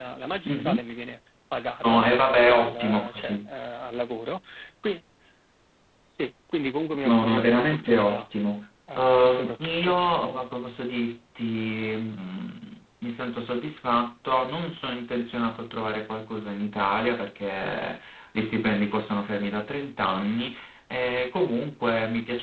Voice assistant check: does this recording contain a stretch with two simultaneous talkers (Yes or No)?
Yes